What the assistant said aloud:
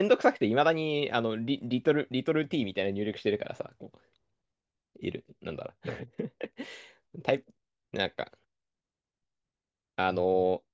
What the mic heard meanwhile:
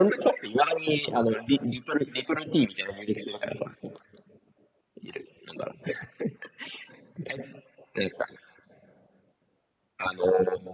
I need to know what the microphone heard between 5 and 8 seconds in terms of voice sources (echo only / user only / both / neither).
echo only